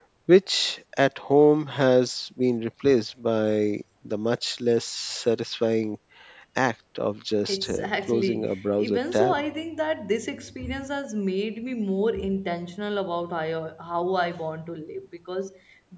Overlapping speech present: Yes, from 7.5 s

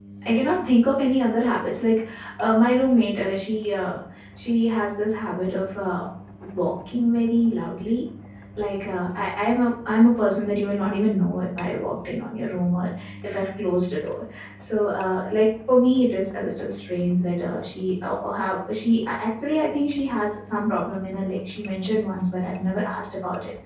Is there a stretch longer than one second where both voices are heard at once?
No

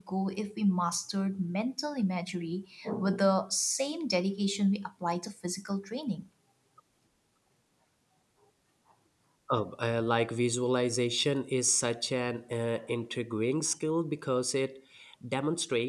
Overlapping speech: No

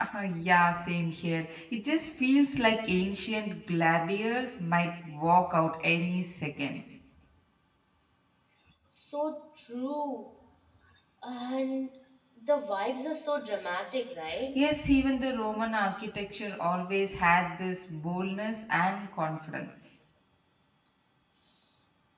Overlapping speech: No

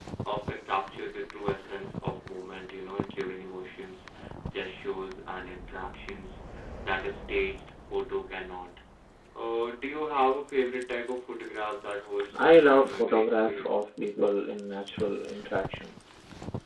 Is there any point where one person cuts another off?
Yes, from 12.3 s

